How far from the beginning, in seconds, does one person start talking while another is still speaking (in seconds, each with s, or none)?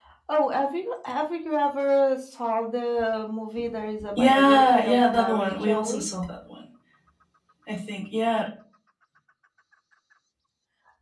4.2 s